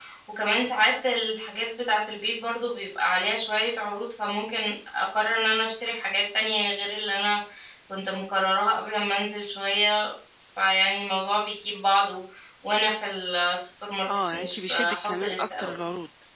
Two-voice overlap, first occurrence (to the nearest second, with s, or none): 14 s